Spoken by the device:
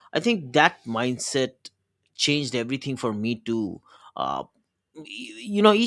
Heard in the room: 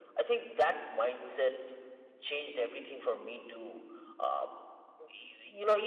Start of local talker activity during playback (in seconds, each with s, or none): none